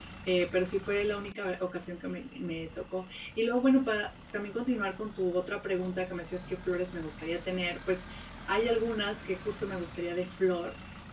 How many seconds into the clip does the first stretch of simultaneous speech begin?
none

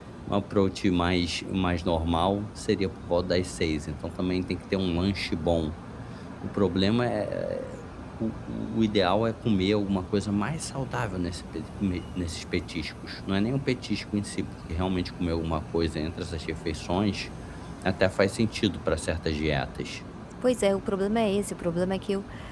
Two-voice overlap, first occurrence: none

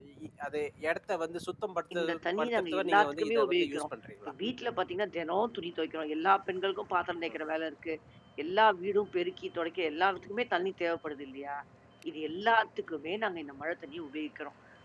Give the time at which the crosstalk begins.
1.9 s

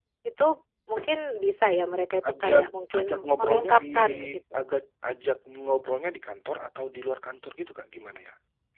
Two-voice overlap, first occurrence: 2.2 s

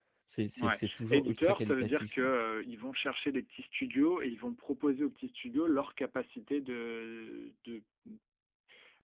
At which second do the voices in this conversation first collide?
0.6 s

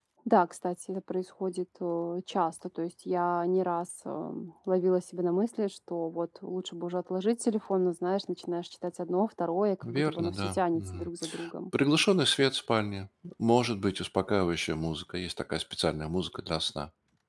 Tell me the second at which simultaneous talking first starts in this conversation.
9.8 s

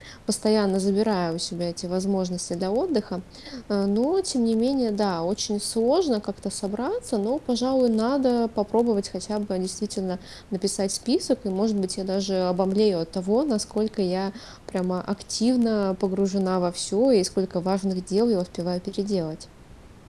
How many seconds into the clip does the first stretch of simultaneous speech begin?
none

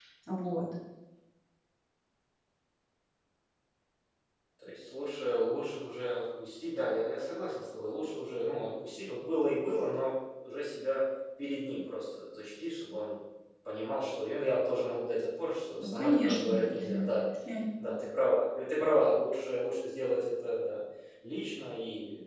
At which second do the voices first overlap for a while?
15.8 s

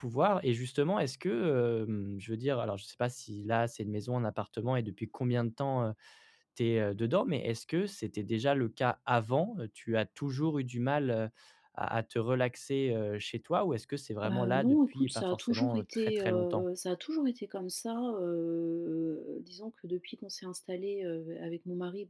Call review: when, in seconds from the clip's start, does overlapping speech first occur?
14.2 s

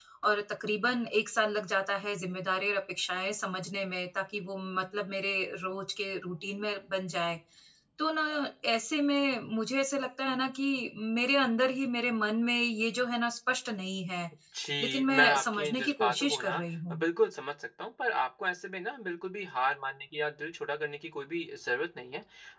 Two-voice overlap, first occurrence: 14.8 s

